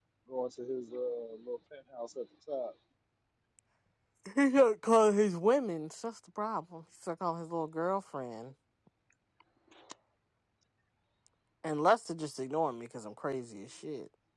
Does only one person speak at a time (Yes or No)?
Yes